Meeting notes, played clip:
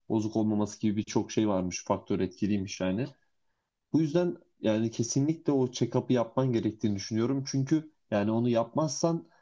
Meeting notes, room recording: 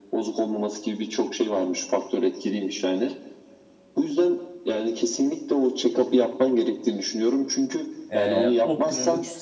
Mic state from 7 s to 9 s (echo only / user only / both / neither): both